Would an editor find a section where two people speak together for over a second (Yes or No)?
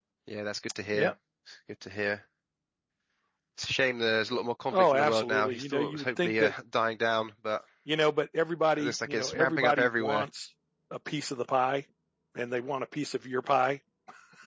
Yes